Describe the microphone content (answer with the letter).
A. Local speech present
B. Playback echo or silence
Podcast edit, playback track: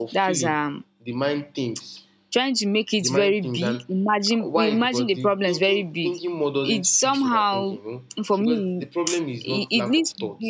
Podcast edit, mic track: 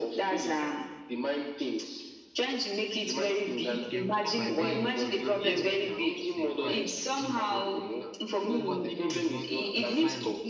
A